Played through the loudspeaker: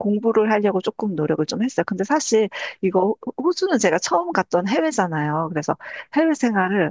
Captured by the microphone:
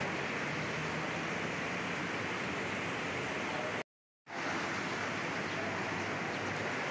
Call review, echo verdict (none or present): none